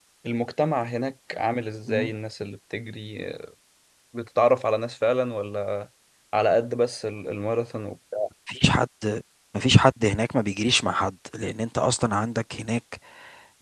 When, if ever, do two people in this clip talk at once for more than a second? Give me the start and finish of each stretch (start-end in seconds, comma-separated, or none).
none